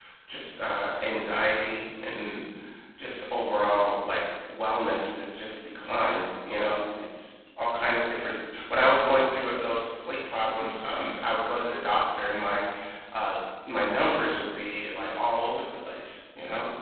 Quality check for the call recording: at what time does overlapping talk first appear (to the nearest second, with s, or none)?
none